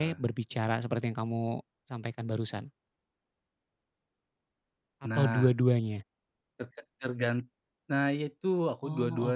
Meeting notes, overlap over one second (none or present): none